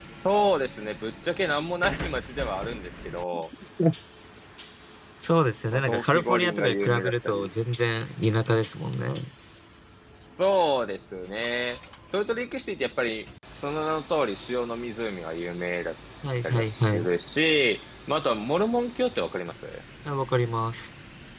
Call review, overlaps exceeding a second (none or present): present